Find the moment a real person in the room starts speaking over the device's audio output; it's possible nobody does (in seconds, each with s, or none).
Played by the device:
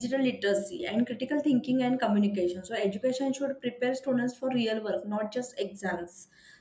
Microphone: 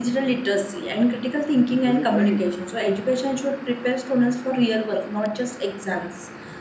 1.9 s